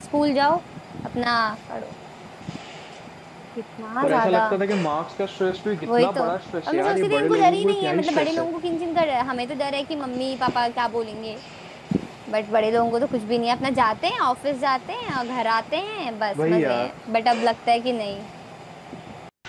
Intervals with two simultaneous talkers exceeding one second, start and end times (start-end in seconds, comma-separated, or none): 6.7-8.4